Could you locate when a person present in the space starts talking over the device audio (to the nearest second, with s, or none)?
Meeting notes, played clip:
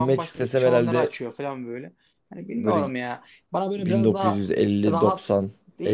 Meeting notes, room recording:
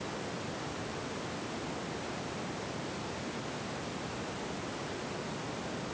none